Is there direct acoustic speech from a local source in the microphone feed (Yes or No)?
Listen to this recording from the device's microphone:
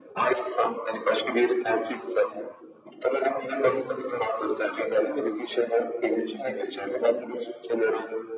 Yes